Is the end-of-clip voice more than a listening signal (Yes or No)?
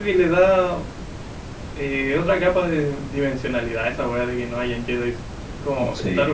No